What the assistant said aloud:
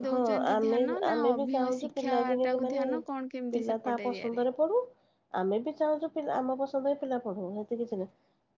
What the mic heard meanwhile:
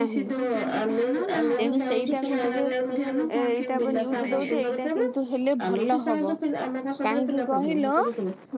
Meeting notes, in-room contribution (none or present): present